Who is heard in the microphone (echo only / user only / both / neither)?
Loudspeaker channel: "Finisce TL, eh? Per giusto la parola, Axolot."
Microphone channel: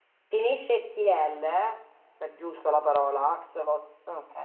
echo only